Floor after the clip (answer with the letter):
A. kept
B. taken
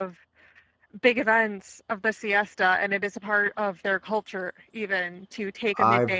B